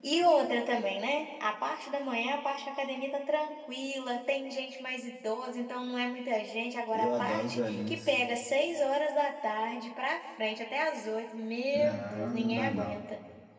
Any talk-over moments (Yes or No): Yes